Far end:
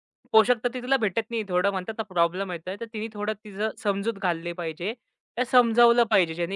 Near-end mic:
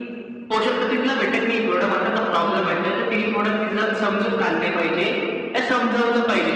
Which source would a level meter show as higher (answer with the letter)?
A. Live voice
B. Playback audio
B